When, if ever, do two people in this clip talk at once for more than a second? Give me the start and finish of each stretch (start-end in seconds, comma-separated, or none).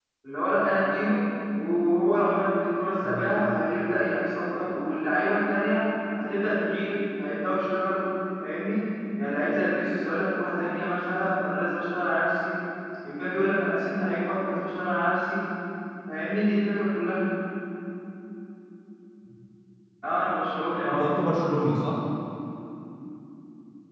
none